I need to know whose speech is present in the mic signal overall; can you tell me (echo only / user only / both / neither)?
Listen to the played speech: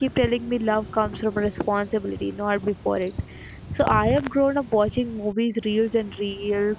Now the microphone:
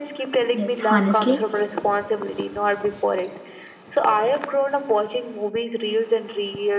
both